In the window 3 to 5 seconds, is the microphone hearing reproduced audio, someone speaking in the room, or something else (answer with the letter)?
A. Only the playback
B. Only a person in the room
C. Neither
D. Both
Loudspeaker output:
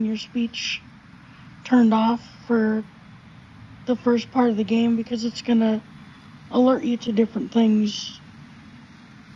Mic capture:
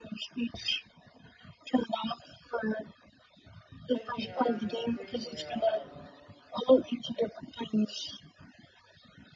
D